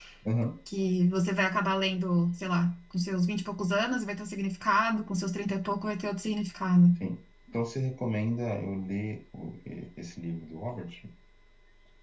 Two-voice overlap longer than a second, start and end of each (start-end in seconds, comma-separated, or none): none